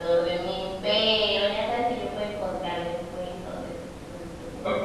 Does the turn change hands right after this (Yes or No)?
Yes